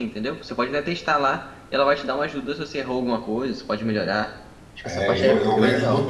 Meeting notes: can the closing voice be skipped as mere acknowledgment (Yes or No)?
No